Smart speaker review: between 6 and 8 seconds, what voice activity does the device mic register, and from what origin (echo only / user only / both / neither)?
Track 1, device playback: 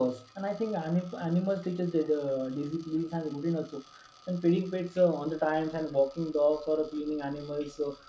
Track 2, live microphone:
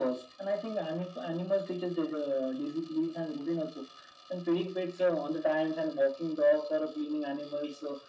echo only